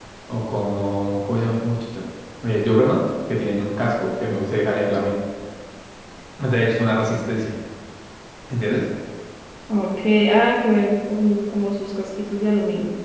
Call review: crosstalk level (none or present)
none